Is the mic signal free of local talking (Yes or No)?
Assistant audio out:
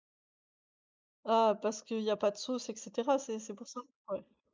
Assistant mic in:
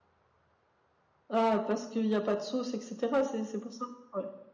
Yes